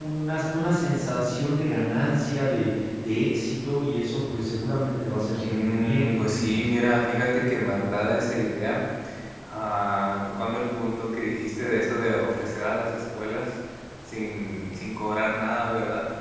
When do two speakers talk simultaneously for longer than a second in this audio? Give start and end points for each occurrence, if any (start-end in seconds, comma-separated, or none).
5.4-6.7